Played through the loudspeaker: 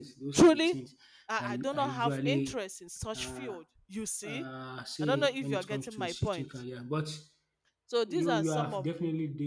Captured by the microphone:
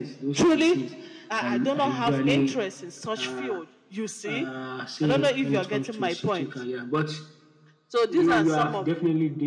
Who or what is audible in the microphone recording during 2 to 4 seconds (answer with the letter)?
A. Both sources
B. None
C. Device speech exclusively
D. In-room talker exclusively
C